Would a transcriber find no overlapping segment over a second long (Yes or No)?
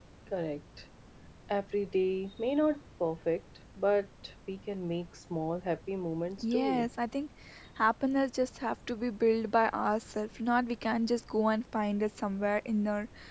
Yes